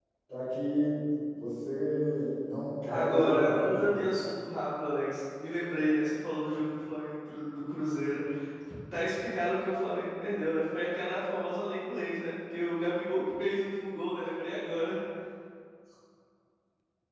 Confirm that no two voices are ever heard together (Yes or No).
No